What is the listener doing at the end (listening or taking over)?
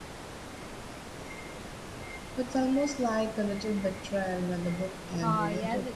taking over